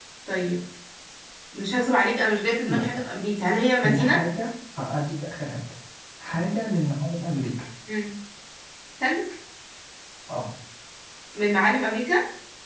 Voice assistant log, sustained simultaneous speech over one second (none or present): none